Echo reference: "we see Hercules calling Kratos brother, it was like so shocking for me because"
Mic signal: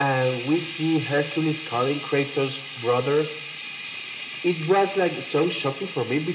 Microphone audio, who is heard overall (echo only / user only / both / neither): echo only